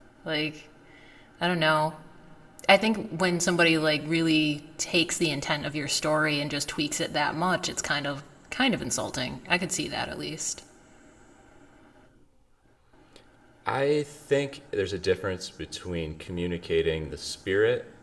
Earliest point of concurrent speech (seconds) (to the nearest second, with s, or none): none